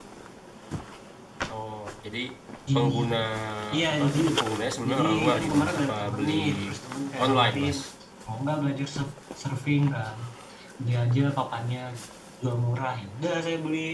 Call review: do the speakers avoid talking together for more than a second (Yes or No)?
No